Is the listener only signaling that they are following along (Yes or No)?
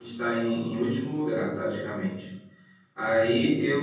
Yes